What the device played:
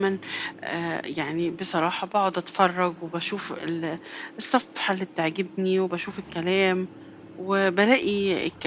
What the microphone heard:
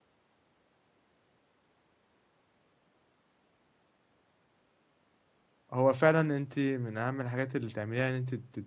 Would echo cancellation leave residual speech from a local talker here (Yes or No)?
Yes